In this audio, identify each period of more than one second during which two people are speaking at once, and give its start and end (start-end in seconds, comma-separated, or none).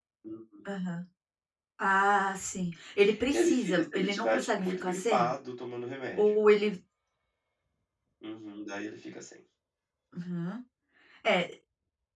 3.3-5.3